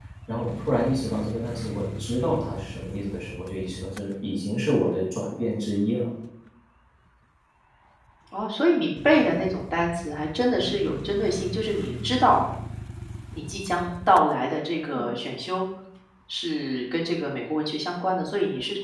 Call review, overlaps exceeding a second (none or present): none